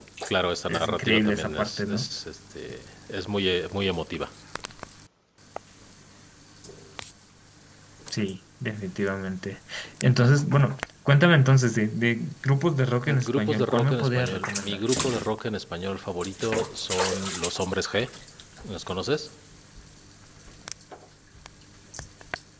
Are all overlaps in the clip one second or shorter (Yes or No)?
No